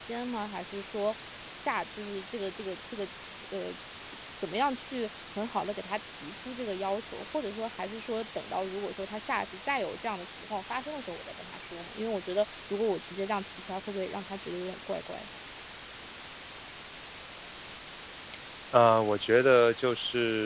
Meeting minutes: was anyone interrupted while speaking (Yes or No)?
No